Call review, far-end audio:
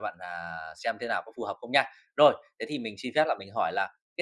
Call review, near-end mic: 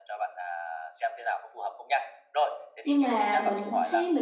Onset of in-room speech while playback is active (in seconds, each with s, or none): 2.8 s